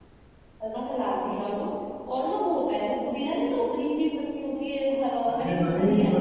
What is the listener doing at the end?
taking over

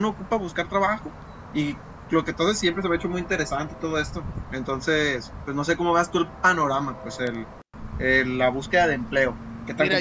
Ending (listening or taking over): taking over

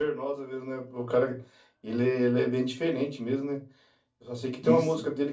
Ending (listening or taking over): listening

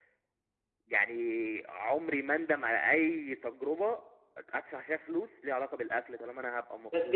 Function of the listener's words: taking over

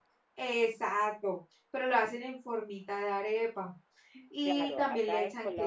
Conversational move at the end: taking over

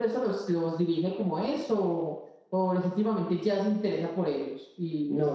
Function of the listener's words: taking over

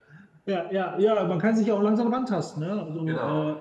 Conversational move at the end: listening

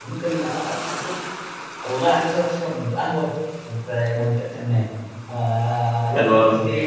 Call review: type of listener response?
listening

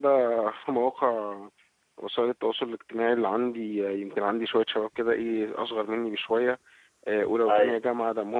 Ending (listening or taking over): listening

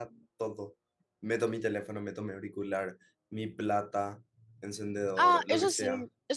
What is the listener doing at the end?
taking over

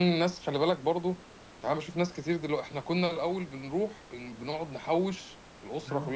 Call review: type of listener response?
listening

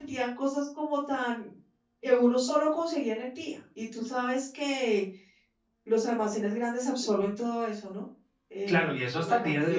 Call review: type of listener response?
taking over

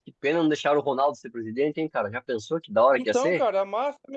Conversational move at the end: taking over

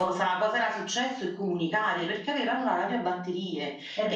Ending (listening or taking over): listening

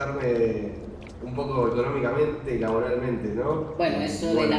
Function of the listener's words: taking over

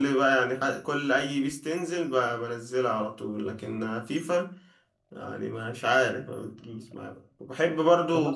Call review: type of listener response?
taking over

